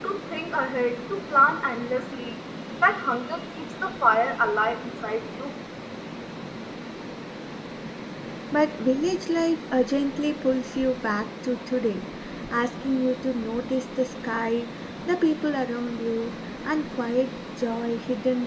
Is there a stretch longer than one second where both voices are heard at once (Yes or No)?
No